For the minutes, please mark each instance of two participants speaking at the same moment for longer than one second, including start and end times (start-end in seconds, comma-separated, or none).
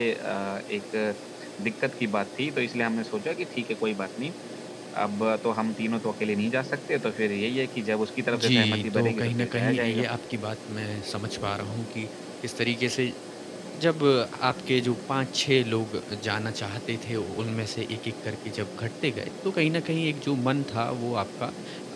8.3-10.0